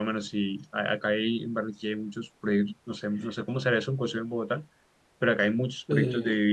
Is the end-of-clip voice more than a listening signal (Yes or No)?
No